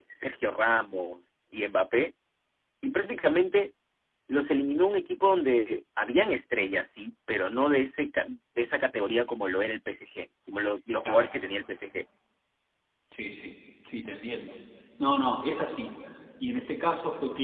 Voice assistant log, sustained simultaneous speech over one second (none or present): none